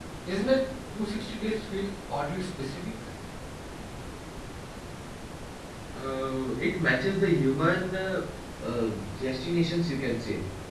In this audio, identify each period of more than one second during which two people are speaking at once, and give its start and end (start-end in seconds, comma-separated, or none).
none